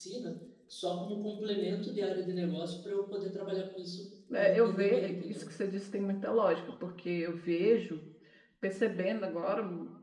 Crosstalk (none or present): present